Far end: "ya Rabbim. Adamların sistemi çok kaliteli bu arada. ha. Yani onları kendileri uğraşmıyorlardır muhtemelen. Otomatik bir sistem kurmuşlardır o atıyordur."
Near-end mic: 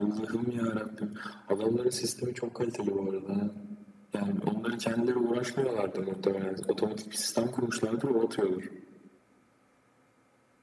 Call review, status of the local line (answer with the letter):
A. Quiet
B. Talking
A